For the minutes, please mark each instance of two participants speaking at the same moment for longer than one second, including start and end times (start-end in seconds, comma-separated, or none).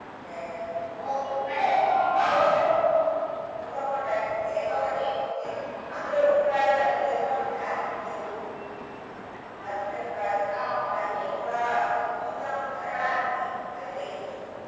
none